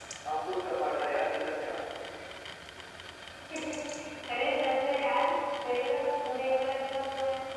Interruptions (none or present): none